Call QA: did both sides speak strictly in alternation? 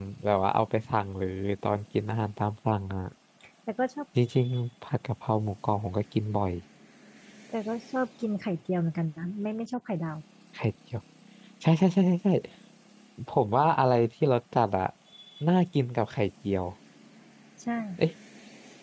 Yes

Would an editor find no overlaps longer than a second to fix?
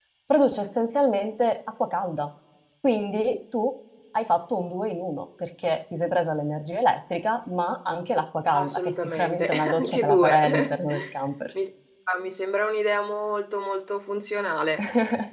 No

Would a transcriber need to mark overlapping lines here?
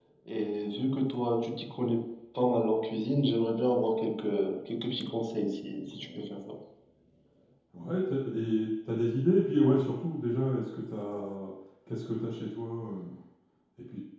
No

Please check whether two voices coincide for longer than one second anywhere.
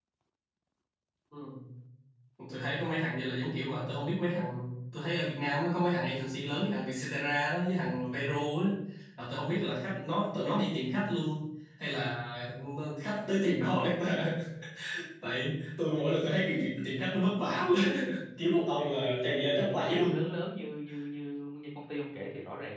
Yes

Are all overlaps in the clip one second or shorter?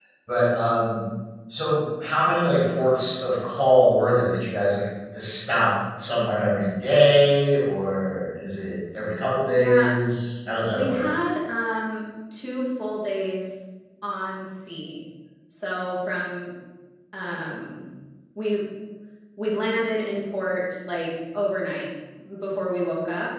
Yes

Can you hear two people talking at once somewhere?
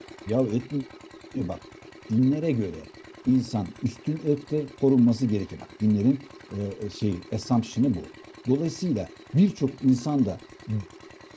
No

